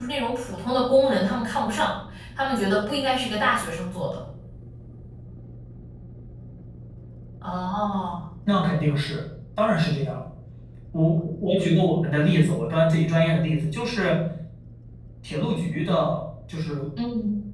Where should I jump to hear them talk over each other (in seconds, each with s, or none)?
none